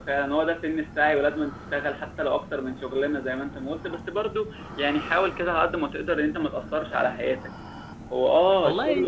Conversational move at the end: listening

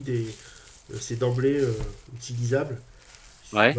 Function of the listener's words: listening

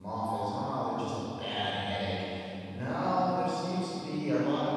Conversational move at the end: listening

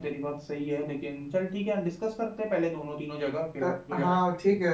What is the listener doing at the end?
taking over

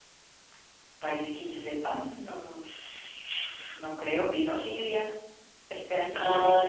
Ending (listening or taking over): taking over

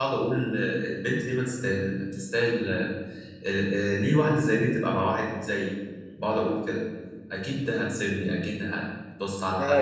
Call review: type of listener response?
taking over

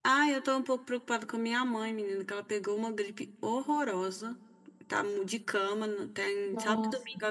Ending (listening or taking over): listening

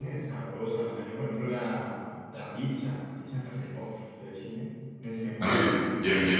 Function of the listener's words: taking over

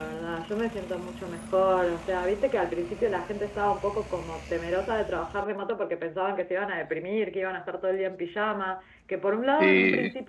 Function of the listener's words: listening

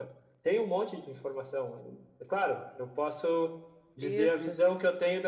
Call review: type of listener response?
listening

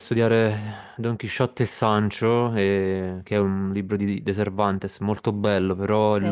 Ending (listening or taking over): listening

